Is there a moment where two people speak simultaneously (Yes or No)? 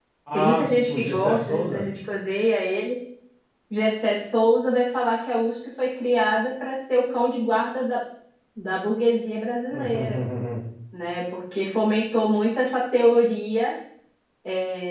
Yes